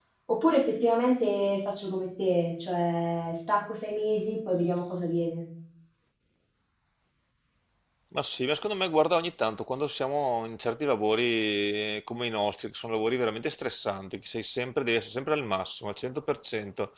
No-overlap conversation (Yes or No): Yes